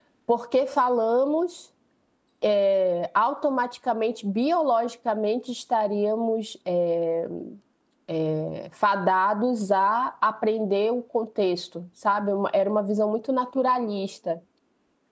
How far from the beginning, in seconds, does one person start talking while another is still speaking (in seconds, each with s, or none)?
none